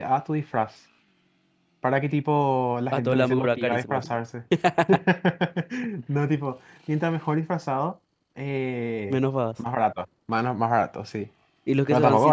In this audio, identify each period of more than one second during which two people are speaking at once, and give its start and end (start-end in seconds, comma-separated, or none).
2.9-4.2